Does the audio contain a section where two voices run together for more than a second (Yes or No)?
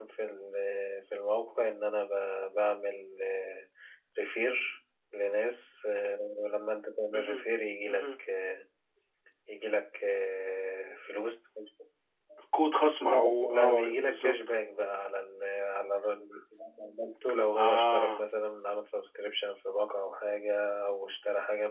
Yes